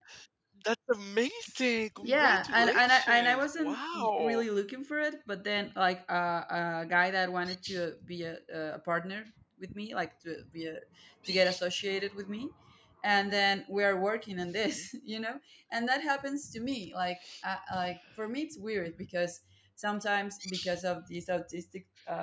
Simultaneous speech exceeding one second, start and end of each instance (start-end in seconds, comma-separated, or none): 2.0-4.4